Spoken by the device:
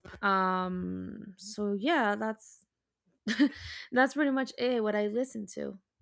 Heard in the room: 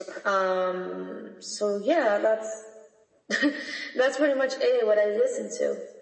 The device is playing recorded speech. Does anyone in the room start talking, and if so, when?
none

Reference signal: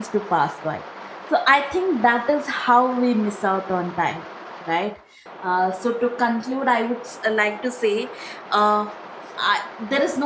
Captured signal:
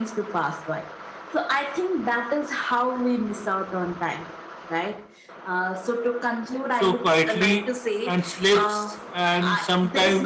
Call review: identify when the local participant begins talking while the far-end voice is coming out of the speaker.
6.7 s

